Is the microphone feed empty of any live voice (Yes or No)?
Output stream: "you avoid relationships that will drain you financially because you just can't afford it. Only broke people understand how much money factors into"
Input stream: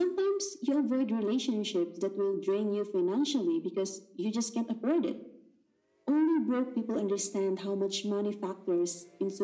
Yes